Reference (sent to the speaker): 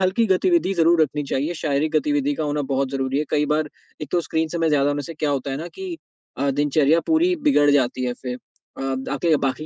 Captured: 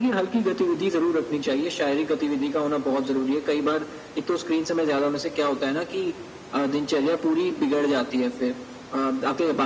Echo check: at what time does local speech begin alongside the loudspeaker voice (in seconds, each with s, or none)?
none